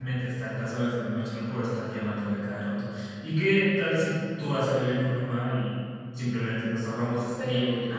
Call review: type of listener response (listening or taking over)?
taking over